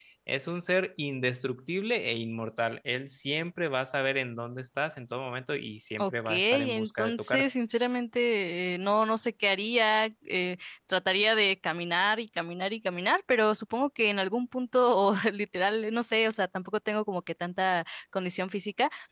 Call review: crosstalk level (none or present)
present